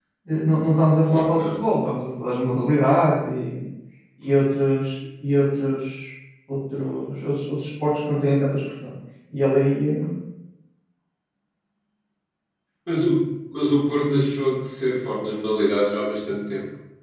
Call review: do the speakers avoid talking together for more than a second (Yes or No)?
Yes